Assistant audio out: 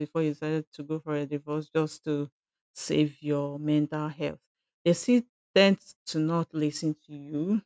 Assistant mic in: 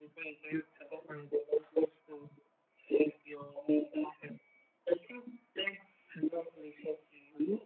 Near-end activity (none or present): none